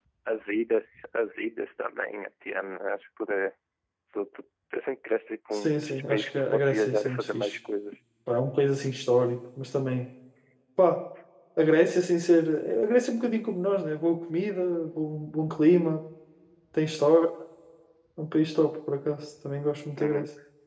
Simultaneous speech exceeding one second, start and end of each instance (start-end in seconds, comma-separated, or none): 5.5-7.6